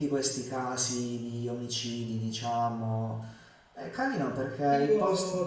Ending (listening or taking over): taking over